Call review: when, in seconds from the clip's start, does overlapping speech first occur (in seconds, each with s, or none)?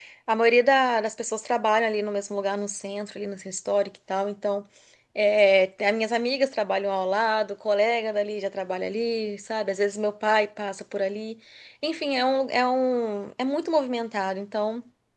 none